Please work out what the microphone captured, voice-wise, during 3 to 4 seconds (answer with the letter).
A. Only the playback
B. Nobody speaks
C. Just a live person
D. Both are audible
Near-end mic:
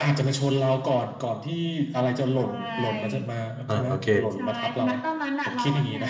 D